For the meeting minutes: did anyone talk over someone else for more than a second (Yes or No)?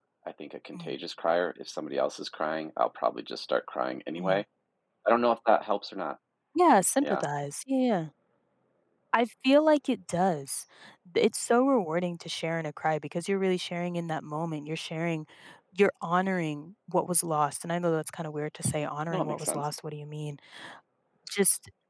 No